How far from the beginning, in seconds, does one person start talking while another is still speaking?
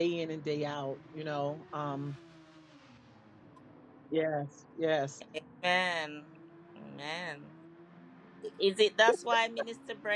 none

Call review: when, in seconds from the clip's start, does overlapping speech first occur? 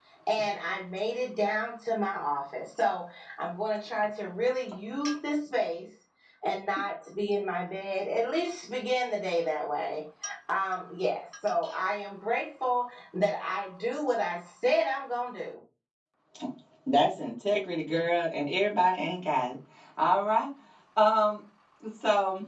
none

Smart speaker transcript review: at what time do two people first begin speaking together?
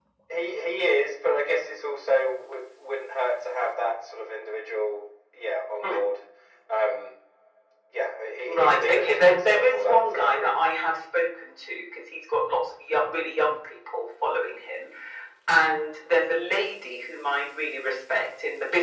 8.4 s

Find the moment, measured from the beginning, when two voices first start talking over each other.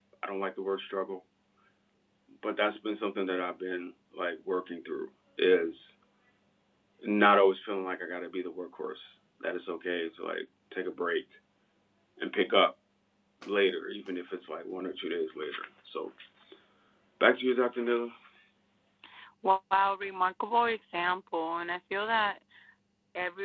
none

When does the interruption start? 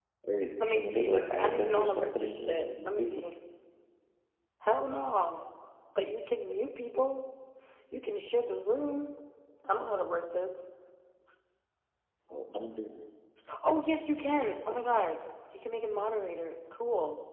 0.6 s

